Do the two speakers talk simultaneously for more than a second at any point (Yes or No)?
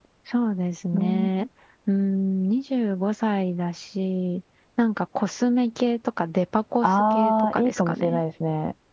Yes